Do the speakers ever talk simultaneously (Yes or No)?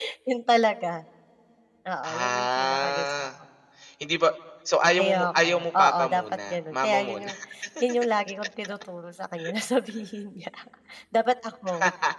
Yes